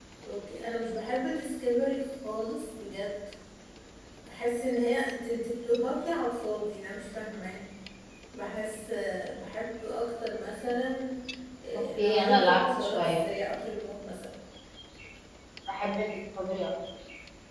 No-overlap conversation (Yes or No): No